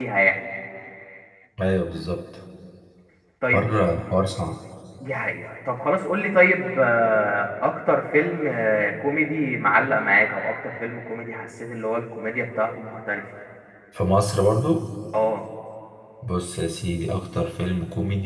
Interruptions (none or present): none